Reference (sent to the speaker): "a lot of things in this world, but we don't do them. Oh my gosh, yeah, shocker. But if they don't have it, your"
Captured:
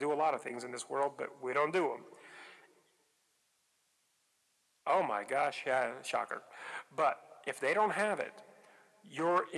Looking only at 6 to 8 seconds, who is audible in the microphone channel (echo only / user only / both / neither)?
echo only